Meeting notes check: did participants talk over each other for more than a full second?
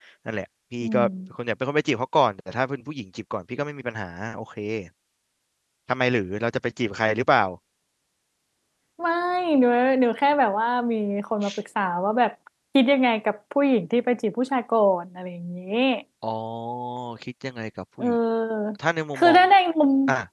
No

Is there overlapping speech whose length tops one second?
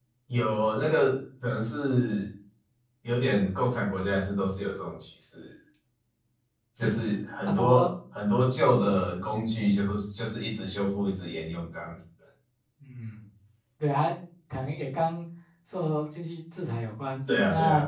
No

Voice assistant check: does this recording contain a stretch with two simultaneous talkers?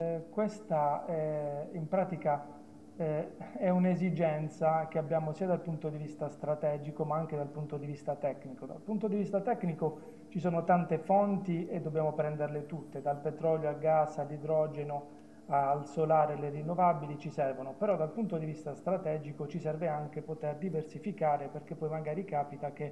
No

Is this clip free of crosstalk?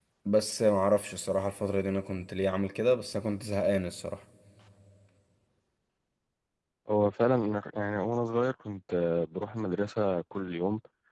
Yes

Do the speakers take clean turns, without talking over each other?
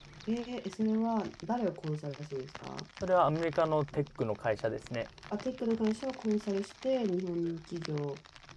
Yes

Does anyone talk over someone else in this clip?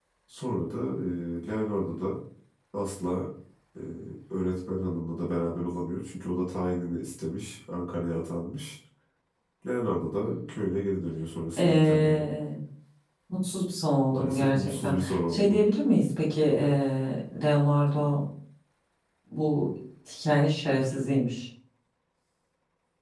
Yes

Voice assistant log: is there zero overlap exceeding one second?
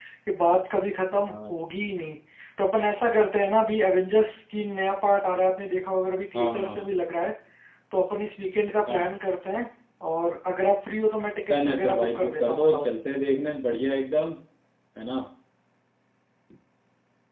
No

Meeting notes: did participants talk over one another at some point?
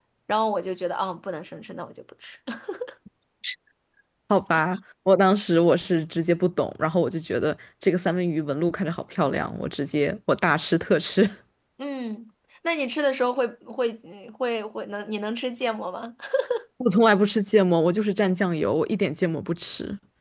No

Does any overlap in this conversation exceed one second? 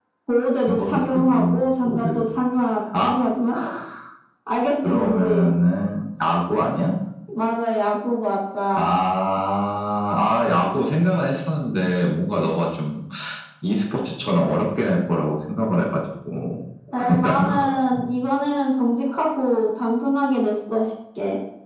Yes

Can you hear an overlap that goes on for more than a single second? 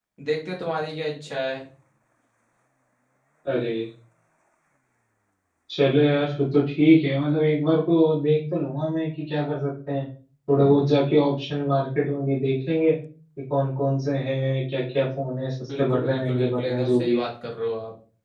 Yes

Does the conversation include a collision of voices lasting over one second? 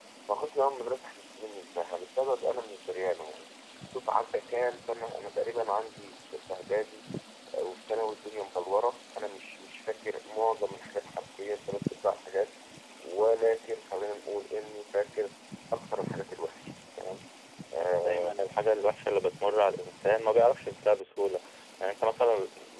No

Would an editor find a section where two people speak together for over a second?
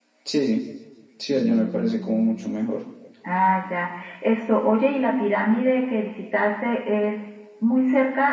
Yes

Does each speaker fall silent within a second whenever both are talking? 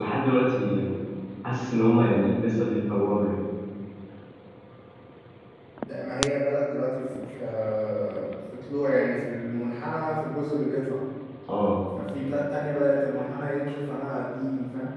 Yes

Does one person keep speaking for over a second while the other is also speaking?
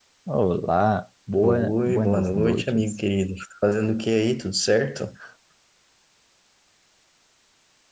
Yes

